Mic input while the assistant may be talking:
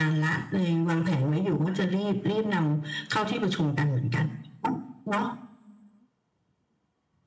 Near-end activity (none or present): none